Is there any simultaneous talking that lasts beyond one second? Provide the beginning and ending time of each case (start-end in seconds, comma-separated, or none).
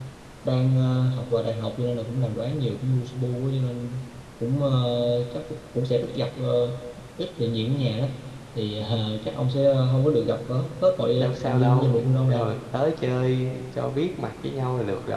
11.1-12.5